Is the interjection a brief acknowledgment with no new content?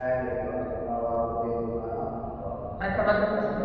No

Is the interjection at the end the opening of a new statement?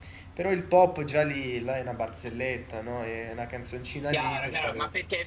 Yes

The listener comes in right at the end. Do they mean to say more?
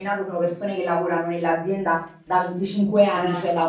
No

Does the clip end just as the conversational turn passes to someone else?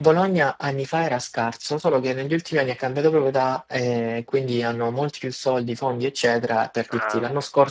No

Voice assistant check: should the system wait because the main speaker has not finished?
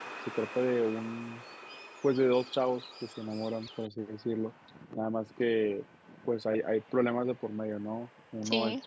Yes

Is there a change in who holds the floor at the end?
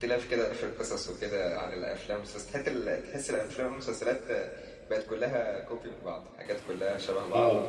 No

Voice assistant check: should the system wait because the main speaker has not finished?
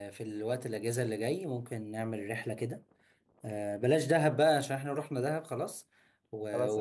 Yes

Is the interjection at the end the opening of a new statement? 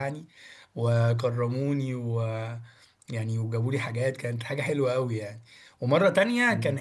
No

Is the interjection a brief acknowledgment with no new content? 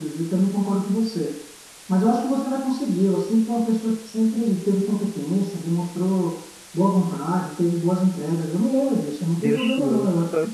No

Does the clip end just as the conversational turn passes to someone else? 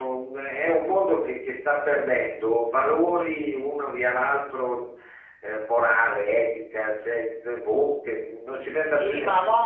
Yes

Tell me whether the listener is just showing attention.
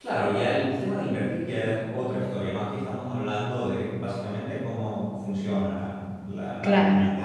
Yes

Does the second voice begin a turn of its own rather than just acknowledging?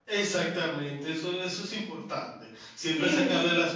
No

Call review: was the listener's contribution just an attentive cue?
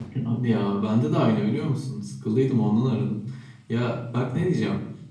Yes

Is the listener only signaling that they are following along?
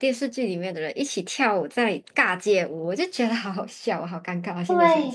No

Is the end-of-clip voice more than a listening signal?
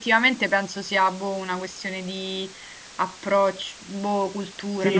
Yes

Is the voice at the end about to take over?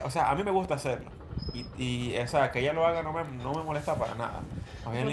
Yes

